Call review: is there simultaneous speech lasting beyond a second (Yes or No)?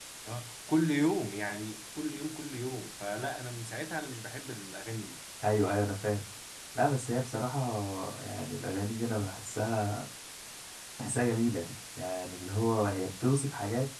No